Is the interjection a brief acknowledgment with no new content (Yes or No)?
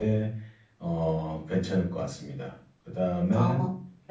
Yes